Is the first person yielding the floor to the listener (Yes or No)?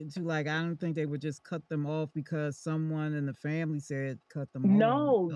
Yes